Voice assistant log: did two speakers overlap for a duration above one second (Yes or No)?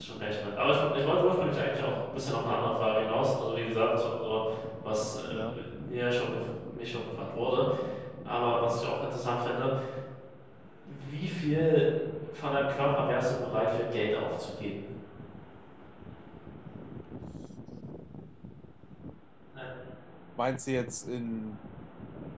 No